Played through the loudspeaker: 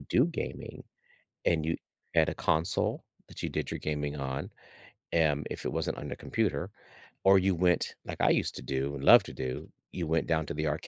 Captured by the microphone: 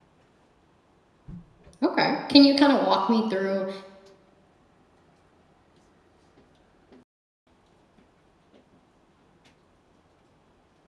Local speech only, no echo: Okay. Can you kinda walk me through,

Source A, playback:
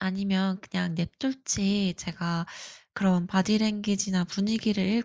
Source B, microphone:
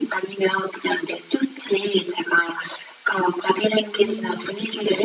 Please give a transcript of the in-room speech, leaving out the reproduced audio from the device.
음.

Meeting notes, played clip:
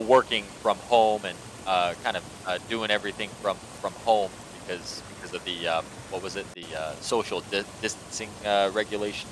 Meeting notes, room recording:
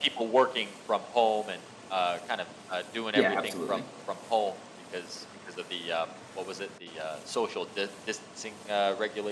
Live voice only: Yeah, absolutely.

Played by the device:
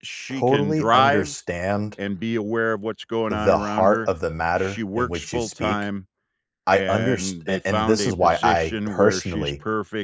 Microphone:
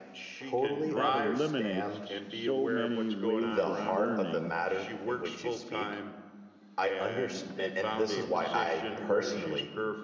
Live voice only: that eliminates so many ways of learning,

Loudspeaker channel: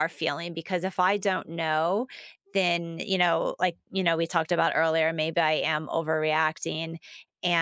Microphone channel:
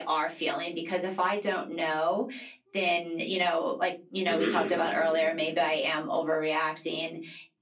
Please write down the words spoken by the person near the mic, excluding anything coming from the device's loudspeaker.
Mhm.

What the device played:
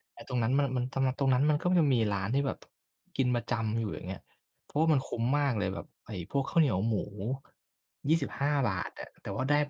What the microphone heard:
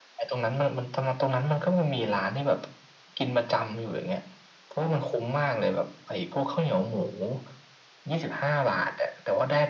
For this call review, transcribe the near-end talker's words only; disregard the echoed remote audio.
none

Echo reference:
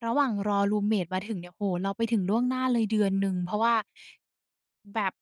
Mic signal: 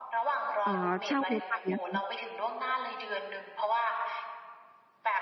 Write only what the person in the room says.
เอ่อเช่ารถไปอะคะ

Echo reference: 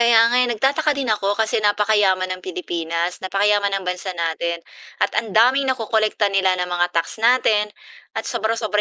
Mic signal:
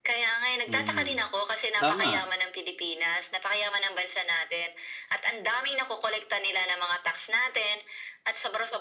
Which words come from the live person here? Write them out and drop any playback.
Mm. Tama,

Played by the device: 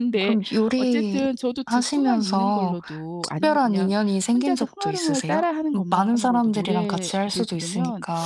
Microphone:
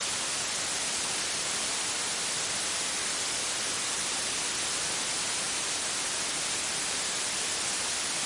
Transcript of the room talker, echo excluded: none

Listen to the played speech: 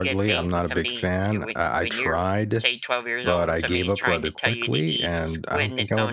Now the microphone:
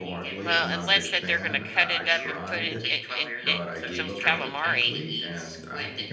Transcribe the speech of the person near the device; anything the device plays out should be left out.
Well, unless that they're gonna cut it up and put in it in it some calamari.

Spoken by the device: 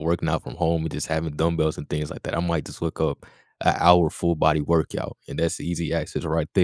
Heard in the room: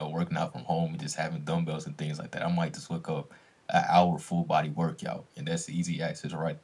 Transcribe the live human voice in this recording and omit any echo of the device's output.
none

